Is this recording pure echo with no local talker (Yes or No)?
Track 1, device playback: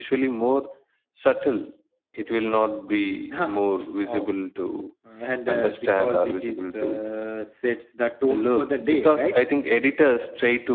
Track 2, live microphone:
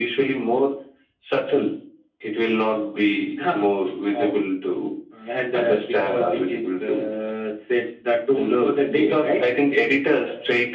Yes